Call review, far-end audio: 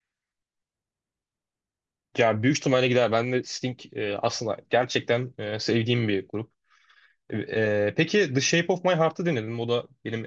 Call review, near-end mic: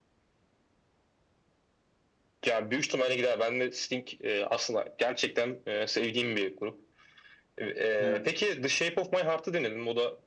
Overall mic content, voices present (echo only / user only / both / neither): both